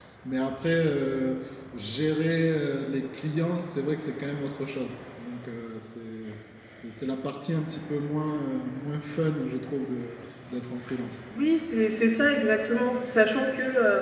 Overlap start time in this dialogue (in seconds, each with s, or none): none